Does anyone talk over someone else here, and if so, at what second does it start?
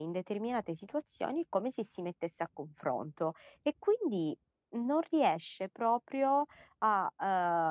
none

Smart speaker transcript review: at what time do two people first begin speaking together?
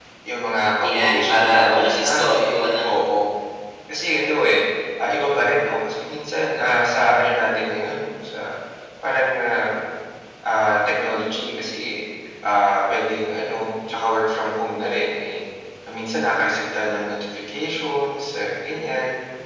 0.8 s

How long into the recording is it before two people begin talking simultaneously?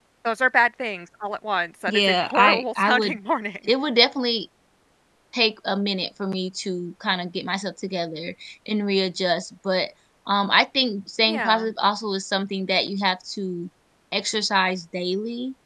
1.9 s

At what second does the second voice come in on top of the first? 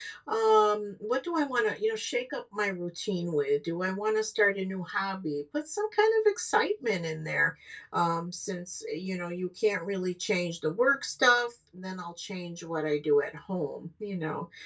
none

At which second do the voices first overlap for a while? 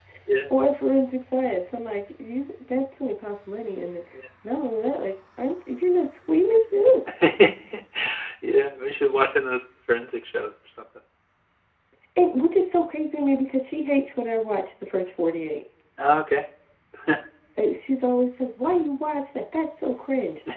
none

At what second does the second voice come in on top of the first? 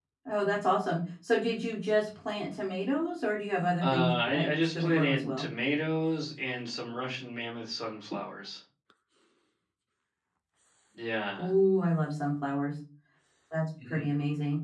3.8 s

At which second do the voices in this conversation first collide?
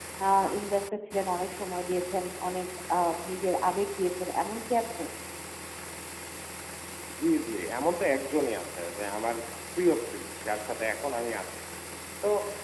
none

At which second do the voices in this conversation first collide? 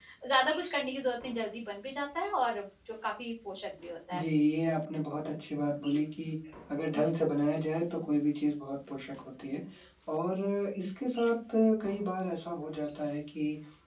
none

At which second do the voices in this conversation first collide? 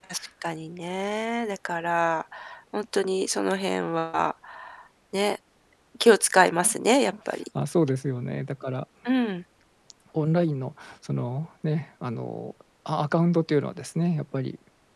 none

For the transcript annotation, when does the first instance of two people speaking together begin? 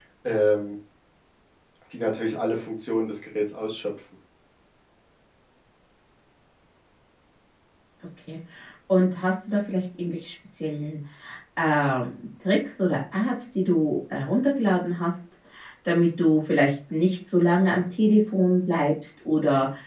none

